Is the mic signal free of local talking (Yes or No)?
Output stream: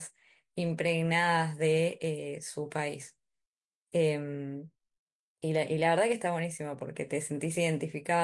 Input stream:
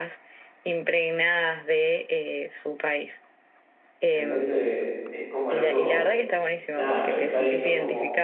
No